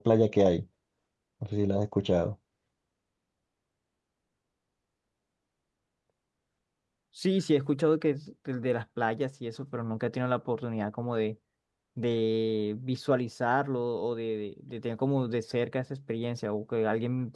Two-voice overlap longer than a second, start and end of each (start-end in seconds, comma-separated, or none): none